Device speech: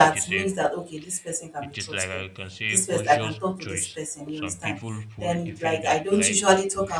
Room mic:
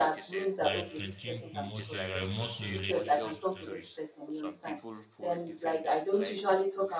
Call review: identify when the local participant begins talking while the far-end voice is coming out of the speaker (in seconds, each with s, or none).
0.6 s